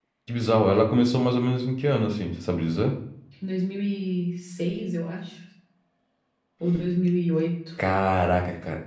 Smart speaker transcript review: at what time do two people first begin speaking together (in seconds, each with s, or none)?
none